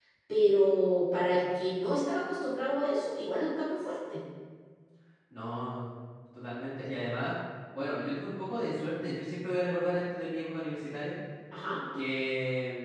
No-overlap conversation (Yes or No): Yes